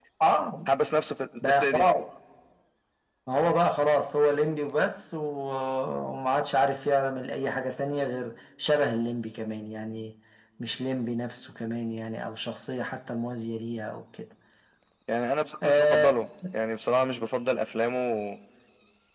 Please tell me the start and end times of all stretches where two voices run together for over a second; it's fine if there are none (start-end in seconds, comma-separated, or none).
none